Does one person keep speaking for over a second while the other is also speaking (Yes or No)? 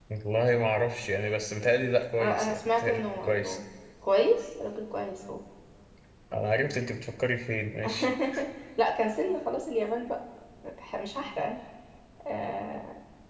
Yes